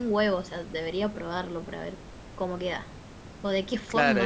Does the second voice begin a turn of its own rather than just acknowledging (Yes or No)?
Yes